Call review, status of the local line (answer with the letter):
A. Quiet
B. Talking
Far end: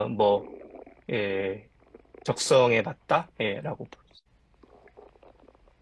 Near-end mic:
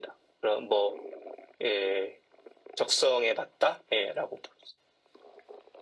A